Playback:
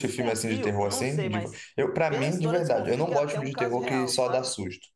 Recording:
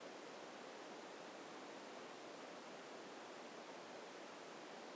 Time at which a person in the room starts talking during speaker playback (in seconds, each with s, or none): none